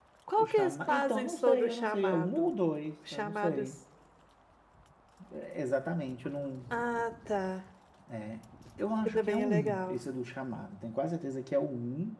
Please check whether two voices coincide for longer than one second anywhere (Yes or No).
Yes